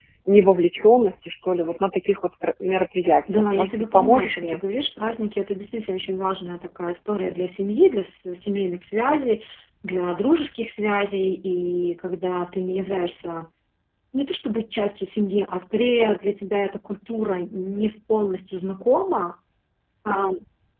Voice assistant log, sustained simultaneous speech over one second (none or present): present